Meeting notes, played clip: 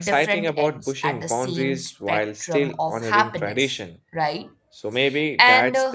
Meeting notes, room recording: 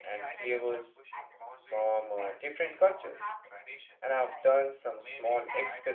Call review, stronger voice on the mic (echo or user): user